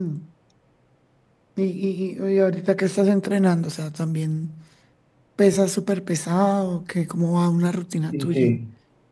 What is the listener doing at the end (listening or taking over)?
taking over